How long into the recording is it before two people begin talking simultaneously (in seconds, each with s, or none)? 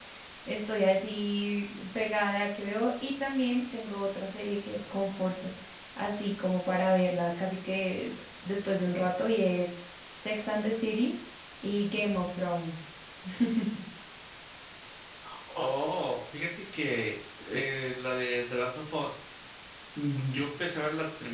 none